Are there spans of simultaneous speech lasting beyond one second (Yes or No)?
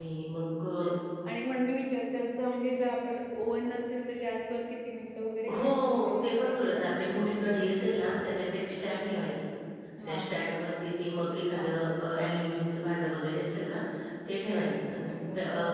Yes